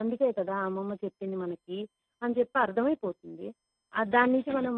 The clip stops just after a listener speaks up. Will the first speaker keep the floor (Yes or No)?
Yes